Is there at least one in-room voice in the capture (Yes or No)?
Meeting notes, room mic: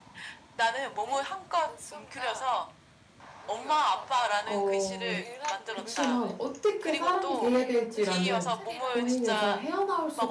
Yes